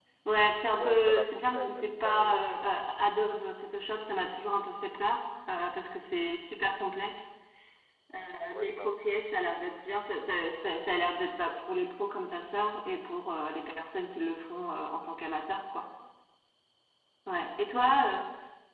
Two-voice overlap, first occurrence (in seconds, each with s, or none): 0.8 s